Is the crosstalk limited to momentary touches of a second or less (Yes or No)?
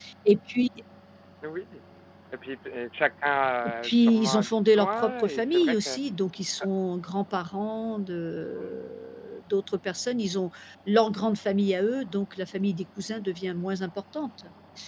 No